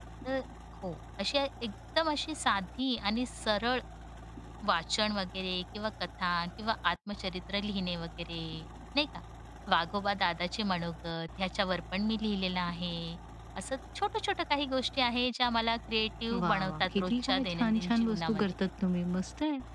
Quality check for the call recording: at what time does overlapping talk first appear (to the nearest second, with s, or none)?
16 s